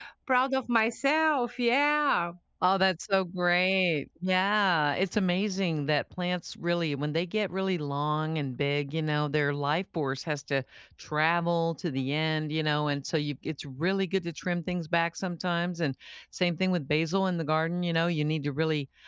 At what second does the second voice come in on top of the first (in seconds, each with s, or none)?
none